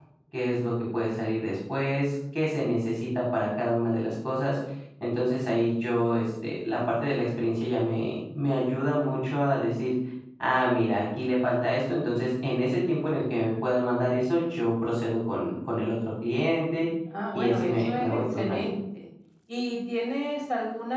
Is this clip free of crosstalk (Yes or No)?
No